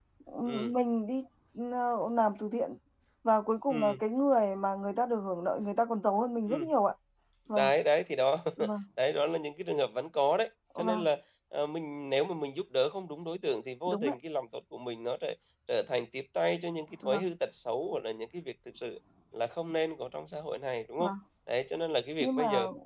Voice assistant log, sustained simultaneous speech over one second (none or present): none